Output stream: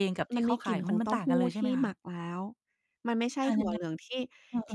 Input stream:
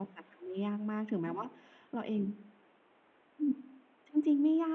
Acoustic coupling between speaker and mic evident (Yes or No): No